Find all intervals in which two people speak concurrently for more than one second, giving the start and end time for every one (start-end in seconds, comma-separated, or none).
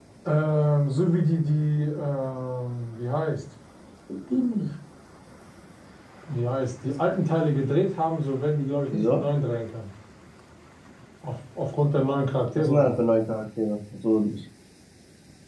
none